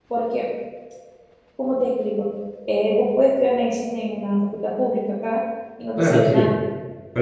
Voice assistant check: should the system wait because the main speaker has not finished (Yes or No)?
No